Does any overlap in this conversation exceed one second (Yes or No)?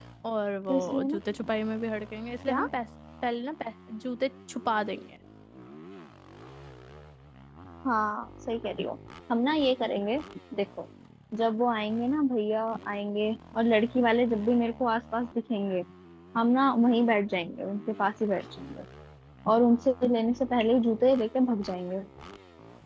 No